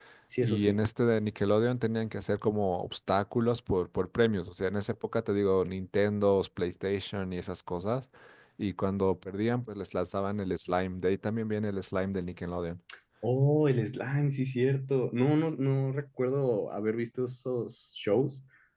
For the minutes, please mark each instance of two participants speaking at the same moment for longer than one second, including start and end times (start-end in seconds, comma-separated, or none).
none